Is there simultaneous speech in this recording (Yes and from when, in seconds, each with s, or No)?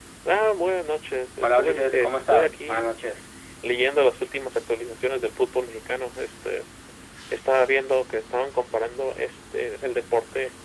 Yes, from 1.4 s